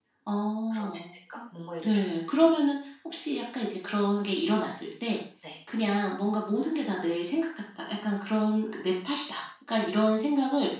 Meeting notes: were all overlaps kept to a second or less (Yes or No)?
Yes